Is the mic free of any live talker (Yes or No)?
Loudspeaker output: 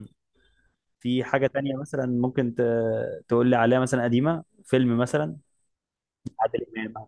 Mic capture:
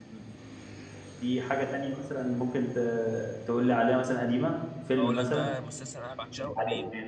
No